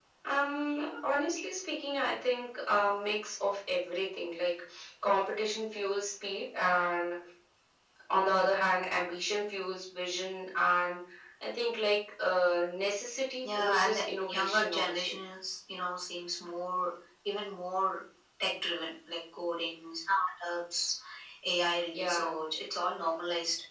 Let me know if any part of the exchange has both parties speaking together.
Yes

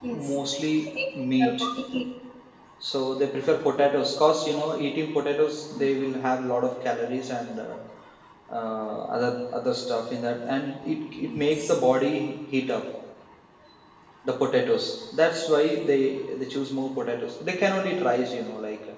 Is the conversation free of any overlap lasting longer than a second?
Yes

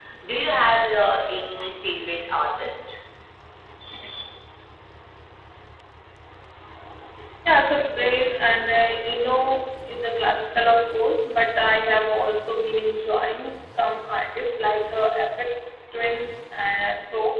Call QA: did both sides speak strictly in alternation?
Yes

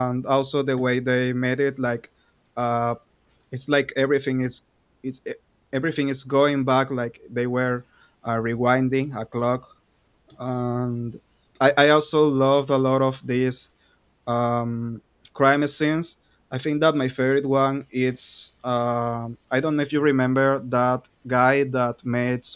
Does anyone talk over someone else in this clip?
No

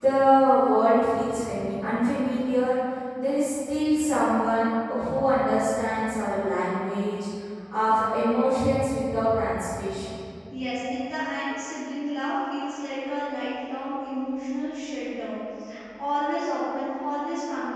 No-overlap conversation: Yes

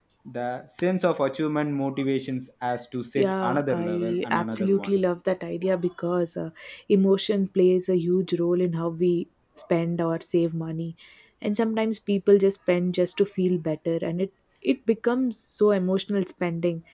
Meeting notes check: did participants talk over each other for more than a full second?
Yes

